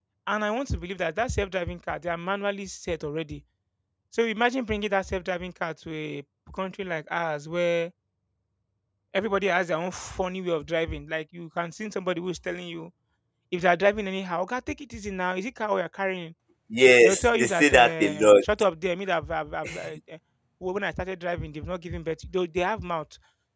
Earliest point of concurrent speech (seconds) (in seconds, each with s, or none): 17.0 s